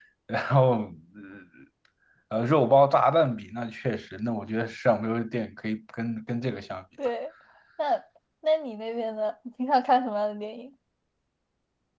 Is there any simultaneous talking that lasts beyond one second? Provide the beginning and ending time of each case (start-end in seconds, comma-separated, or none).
none